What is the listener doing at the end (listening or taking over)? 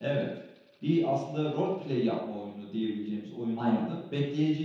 listening